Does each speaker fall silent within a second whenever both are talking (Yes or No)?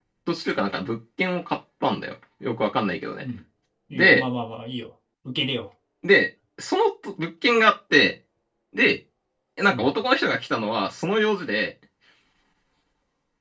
Yes